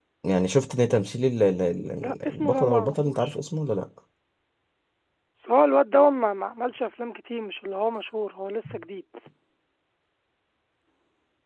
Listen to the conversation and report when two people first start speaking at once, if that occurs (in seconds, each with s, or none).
2.0 s